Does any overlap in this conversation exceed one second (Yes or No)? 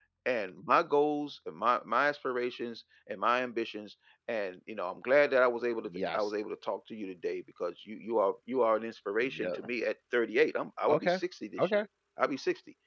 No